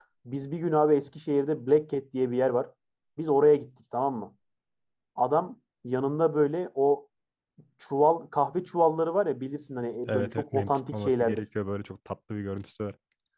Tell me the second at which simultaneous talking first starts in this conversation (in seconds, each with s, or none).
10.1 s